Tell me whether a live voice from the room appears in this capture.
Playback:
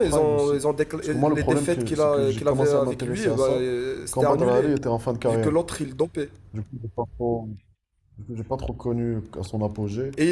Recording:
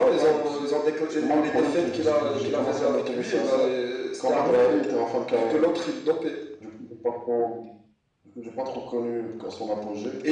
Yes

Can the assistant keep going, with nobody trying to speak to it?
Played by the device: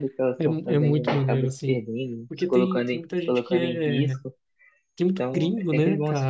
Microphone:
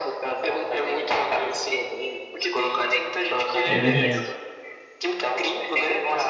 No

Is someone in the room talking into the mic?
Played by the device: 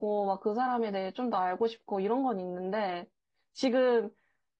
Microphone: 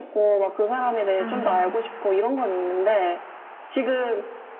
Yes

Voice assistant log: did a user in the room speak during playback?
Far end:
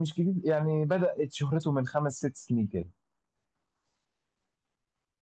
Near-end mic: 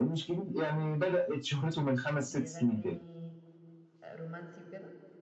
Yes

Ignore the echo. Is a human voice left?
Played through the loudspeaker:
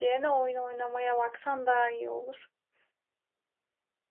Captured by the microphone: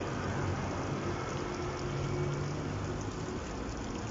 No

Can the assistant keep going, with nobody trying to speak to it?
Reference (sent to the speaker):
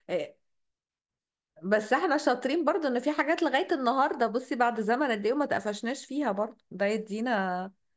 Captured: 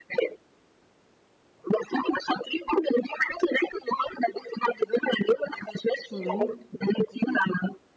No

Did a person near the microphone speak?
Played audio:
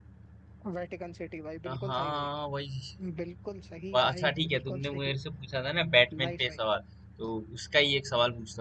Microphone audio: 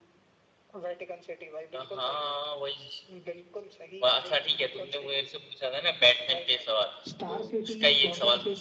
Yes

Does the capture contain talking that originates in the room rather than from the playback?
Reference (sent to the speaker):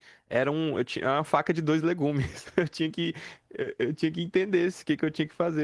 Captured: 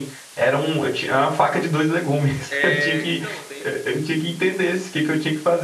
Yes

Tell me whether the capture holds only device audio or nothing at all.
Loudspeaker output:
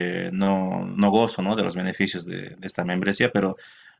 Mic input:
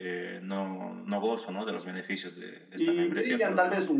No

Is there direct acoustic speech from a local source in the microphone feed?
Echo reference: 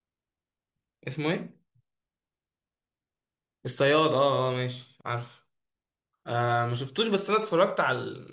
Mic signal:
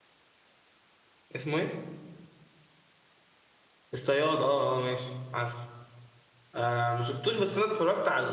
No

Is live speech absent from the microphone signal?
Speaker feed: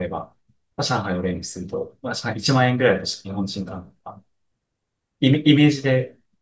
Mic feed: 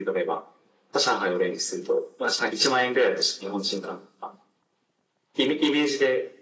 Yes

